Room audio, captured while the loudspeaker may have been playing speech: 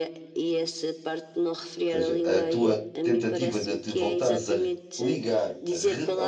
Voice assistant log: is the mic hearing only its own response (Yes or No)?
No